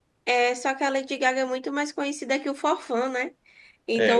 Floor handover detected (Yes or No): No